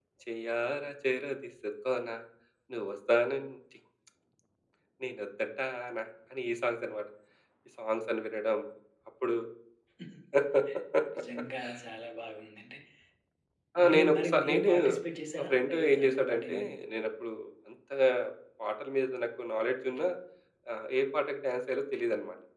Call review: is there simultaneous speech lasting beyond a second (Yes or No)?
Yes